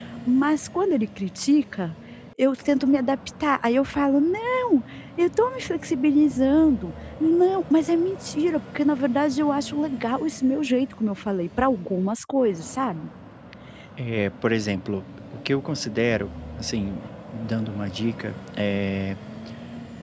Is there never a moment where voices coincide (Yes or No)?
Yes